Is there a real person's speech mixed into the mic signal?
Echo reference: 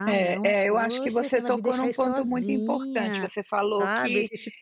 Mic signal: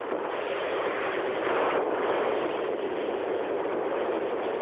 No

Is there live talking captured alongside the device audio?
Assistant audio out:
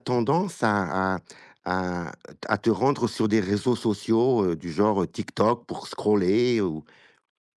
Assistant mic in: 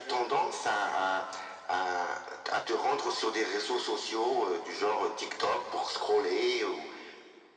No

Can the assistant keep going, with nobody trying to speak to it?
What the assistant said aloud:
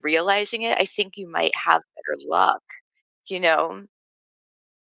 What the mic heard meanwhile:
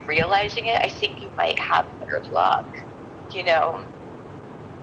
Yes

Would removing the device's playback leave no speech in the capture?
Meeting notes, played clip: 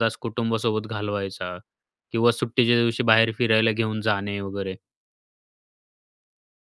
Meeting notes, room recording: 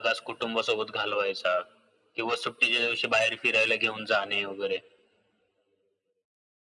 Yes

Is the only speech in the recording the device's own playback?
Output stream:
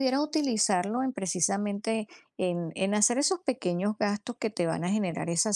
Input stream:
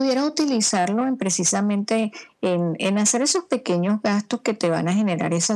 Yes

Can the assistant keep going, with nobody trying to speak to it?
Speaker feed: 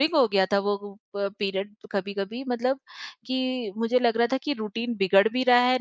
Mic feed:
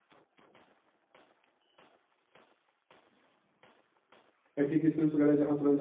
No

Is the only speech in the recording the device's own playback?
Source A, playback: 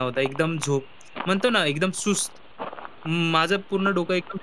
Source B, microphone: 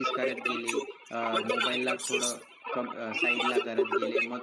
No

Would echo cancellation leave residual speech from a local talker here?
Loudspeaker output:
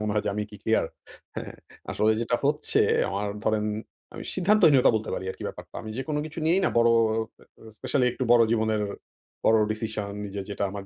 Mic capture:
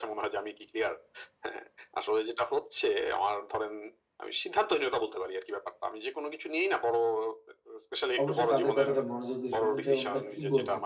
Yes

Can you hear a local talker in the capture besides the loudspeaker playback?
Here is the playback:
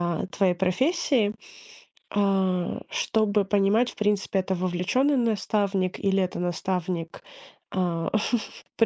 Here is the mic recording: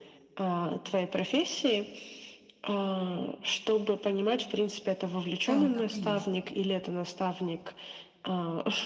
Yes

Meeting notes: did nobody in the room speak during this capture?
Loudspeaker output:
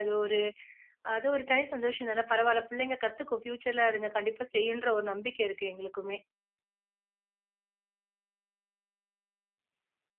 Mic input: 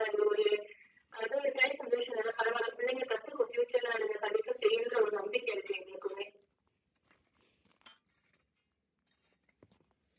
Yes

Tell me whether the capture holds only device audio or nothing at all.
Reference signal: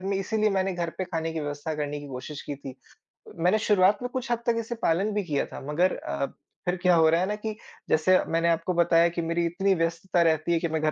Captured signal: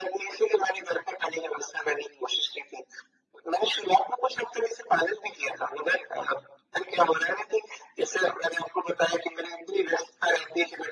Yes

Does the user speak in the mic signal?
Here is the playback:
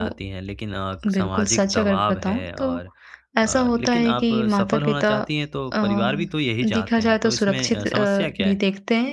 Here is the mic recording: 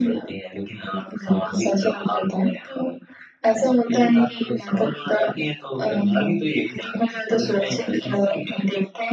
No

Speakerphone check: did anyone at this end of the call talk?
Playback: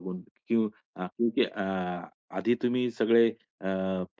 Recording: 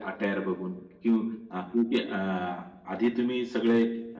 No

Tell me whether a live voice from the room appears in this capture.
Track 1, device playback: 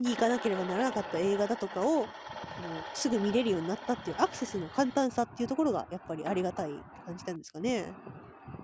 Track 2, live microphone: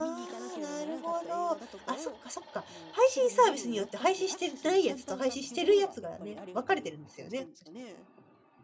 Yes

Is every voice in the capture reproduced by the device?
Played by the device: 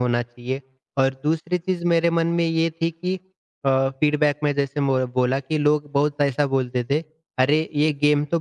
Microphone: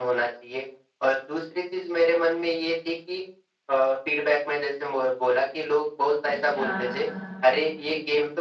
No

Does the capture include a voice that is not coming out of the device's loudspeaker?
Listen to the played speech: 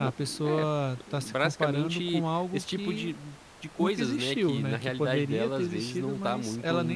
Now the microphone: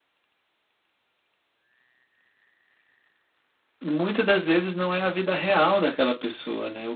Yes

